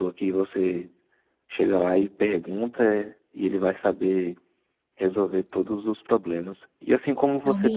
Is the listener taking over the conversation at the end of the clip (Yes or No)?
No